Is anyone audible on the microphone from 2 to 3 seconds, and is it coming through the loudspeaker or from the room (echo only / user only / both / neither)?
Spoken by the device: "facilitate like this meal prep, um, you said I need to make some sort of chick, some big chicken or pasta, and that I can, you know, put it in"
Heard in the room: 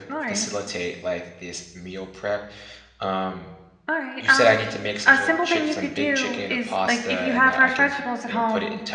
echo only